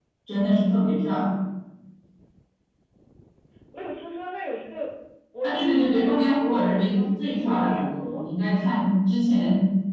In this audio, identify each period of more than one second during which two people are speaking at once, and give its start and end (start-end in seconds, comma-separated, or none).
5.4-8.2